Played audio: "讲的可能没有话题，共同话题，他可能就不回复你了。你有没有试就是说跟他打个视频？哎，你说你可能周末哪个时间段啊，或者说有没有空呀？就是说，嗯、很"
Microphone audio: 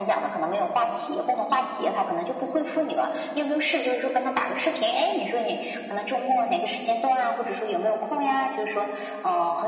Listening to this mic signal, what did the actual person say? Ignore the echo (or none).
none